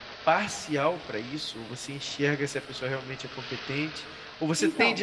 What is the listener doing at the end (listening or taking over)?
listening